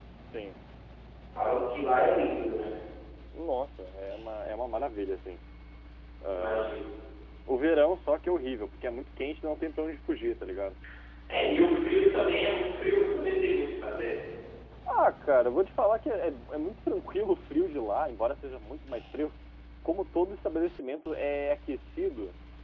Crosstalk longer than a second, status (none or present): none